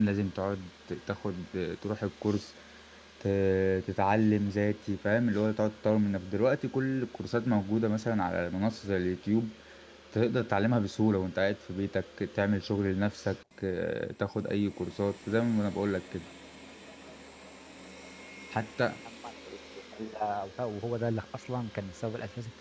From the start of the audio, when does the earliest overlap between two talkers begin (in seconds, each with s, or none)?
none